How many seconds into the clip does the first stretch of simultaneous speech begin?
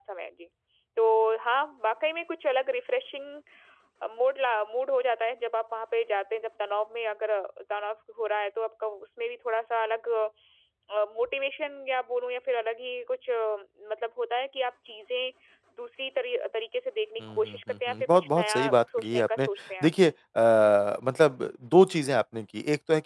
17.2 s

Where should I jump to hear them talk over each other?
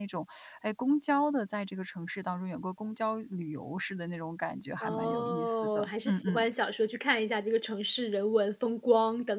4.8 s

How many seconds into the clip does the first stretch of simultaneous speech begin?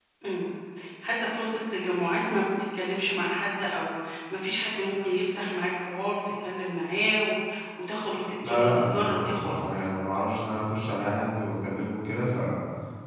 8.4 s

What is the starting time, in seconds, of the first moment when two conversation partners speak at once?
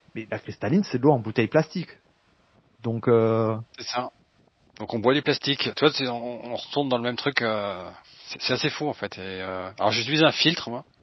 none

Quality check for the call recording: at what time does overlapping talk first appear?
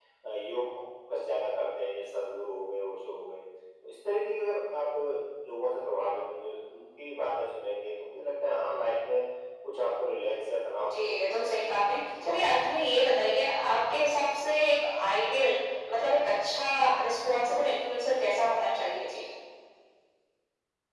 10.8 s

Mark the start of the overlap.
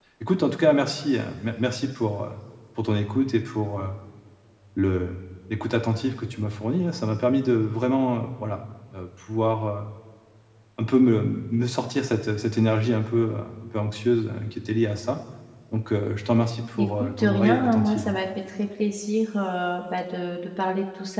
16.8 s

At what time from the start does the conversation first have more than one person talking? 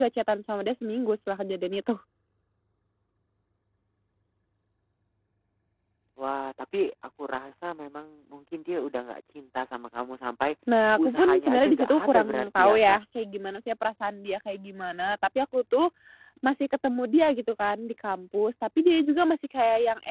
11.0 s

